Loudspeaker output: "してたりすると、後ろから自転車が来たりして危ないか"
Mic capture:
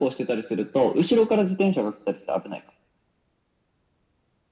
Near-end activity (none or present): none